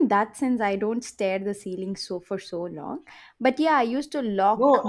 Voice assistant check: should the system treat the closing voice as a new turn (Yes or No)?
Yes